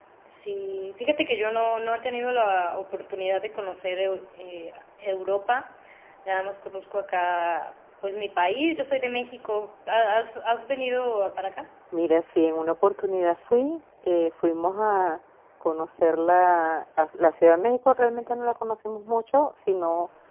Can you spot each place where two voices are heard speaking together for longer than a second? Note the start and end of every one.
none

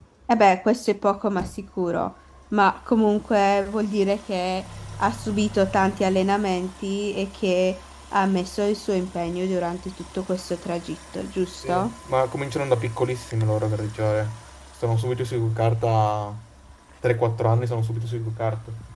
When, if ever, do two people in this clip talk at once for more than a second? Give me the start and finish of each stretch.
none

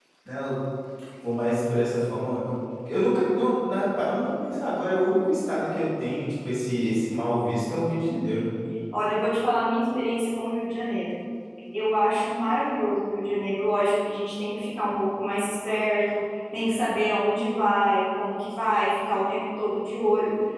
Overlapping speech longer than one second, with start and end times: none

